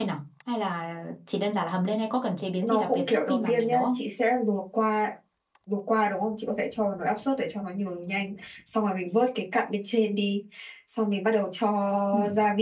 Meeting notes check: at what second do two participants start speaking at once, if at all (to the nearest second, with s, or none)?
3 s